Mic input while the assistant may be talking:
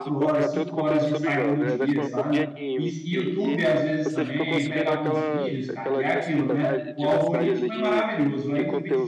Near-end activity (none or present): present